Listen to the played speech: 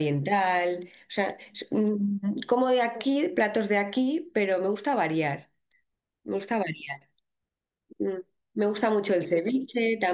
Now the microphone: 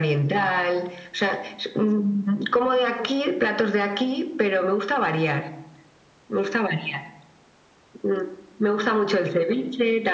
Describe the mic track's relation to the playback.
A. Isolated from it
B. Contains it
B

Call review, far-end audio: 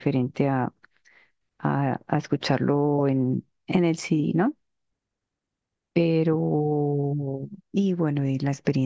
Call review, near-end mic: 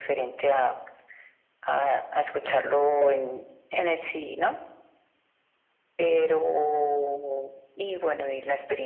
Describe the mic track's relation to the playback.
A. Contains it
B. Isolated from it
A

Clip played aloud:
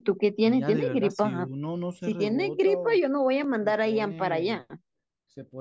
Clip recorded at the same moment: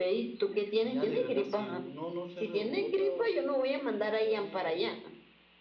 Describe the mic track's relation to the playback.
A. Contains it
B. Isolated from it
A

